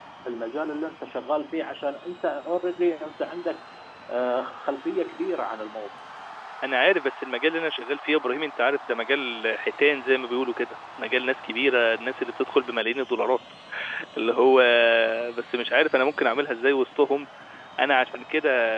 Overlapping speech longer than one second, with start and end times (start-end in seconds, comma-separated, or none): none